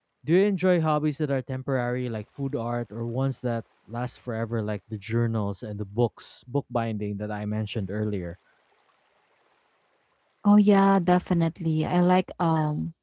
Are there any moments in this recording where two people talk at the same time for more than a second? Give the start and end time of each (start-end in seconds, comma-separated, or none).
none